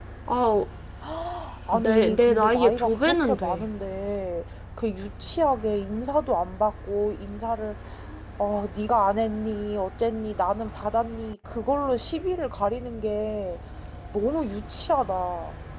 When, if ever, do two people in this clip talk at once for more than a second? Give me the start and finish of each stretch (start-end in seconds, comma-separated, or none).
1.7-3.6